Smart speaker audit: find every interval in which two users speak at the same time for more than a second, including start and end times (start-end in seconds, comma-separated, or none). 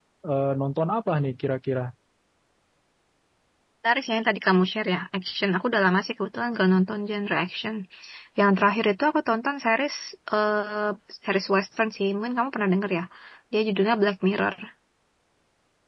none